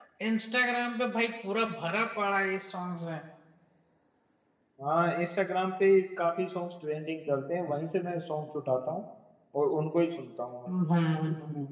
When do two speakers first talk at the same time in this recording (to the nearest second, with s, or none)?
none